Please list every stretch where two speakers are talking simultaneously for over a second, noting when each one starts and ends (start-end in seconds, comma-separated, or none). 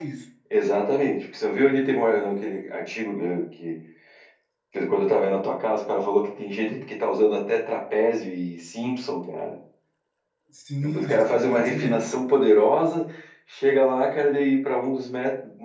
10.8-12.0